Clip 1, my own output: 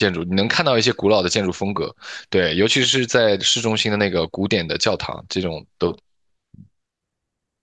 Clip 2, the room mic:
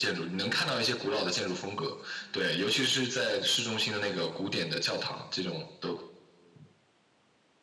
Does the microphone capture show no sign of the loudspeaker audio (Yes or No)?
No